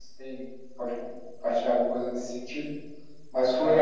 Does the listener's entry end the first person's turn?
No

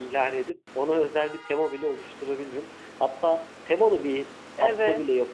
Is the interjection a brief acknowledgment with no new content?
Yes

